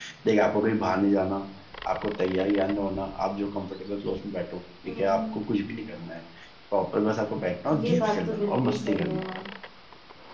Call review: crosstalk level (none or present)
present